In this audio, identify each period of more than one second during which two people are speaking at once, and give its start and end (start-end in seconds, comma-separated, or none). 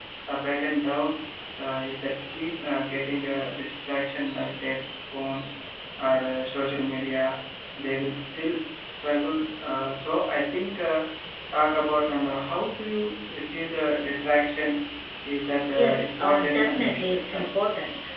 15.7-17.5